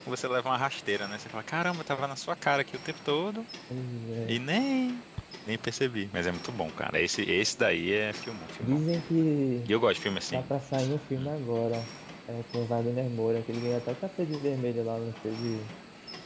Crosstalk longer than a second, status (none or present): none